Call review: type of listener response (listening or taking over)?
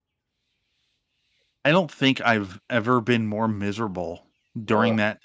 listening